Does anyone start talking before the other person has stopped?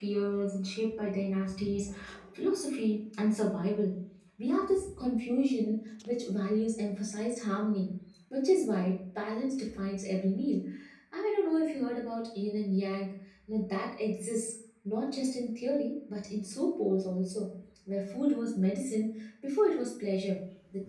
No

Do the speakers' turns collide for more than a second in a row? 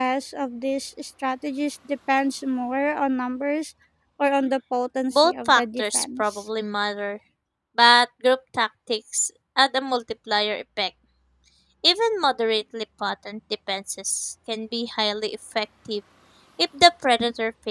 Yes, from 5.1 s

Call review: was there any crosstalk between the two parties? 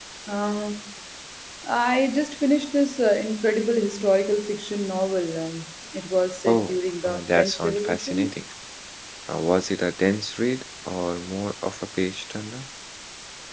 Yes, from 6.5 s

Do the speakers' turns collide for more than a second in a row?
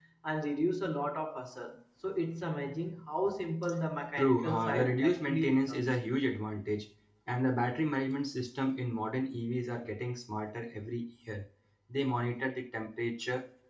Yes, from 4.2 s

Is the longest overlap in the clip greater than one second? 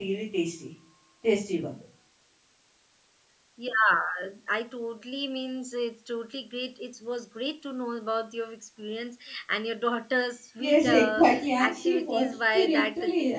Yes, from 10.6 s

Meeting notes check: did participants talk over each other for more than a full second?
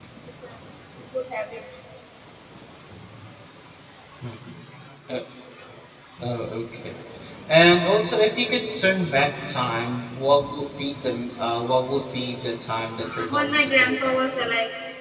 Yes, from 13.0 s

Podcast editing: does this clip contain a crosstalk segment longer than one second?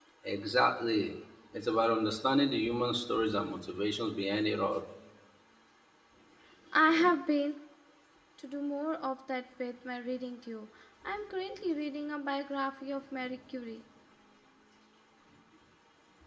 No

